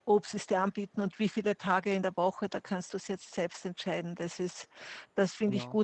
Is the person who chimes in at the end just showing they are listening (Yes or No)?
Yes